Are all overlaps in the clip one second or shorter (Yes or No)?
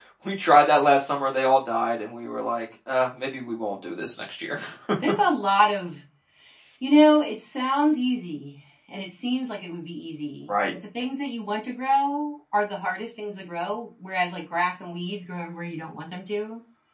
Yes